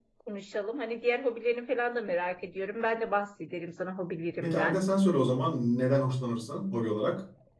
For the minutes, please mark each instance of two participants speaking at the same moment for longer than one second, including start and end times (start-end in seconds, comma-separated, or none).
none